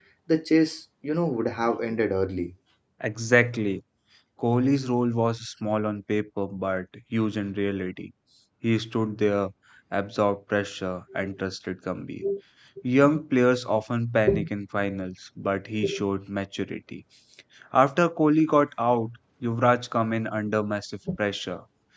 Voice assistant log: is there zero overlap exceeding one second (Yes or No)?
Yes